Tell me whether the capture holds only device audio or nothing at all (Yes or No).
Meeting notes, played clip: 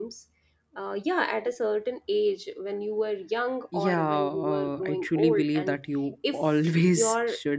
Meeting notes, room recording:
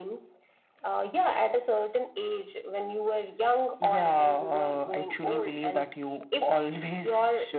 Yes